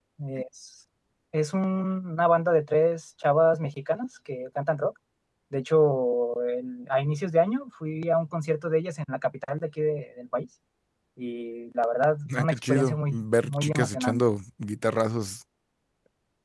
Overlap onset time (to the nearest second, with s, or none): 12 s